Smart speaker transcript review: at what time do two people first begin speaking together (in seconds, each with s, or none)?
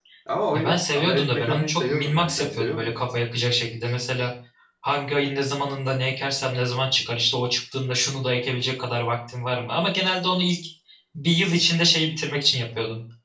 0.5 s